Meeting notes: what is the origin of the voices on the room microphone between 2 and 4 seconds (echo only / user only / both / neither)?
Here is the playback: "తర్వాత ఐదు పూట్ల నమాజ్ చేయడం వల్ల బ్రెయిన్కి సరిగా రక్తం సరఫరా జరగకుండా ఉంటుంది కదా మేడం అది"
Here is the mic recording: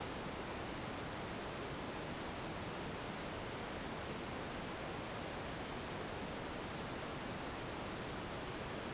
neither